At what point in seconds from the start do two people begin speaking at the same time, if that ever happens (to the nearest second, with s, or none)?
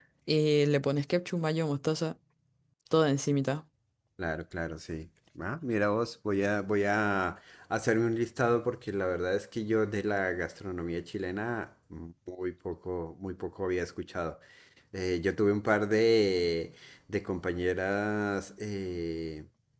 none